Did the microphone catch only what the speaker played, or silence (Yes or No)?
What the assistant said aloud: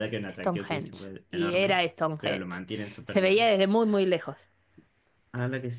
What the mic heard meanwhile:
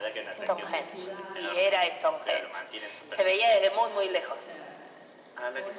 No